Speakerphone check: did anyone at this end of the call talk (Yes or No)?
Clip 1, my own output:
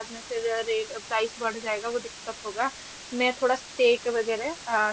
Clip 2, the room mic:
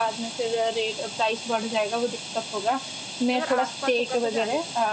Yes